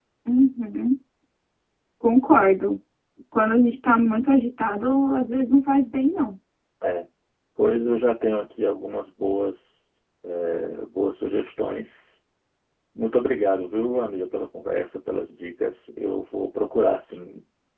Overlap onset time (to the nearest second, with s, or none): none